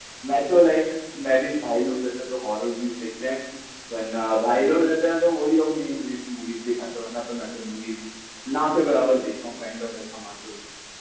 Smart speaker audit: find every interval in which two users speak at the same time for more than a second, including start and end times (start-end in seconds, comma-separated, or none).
none